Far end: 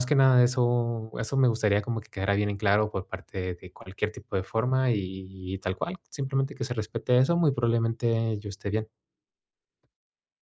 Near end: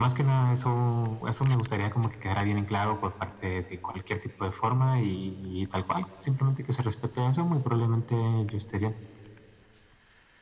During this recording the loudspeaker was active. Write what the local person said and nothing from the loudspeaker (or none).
none